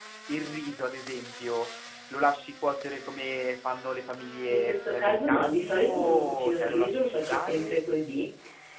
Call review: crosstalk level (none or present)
present